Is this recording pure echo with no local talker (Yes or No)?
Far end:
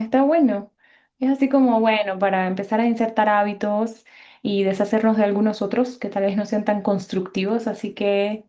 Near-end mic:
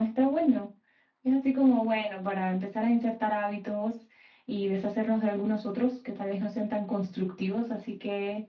Yes